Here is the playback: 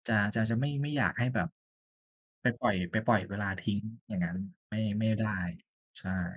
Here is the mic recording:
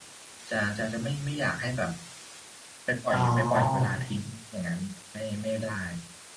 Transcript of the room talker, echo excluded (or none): อ๋อ